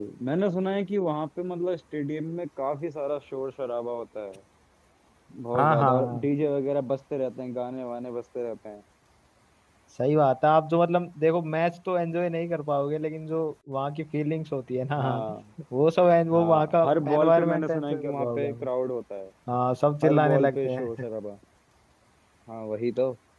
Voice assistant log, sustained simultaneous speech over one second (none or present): present